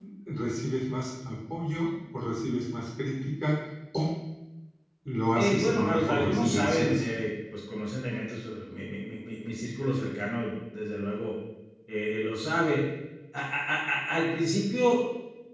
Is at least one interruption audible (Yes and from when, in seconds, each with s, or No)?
Yes, from 5.3 s